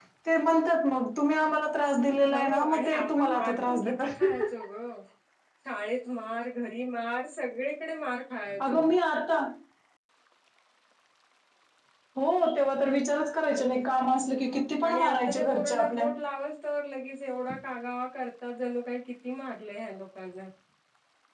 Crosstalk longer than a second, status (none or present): present